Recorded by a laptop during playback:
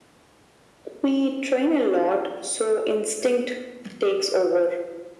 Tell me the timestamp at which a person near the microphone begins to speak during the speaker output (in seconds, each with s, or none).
none